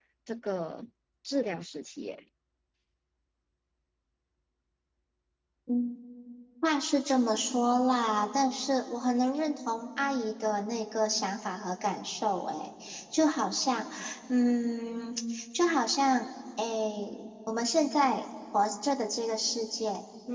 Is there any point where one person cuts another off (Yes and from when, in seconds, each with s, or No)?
No